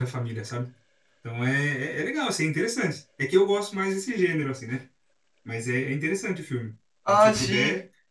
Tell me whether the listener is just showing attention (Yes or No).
No